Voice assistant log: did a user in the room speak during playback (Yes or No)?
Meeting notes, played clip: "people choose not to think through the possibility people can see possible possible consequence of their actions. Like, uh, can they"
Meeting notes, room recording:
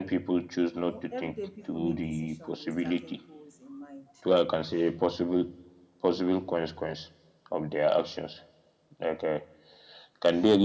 Yes